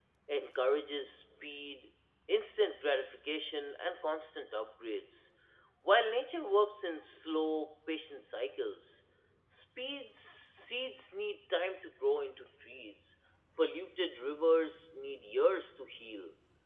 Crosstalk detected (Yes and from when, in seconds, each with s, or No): No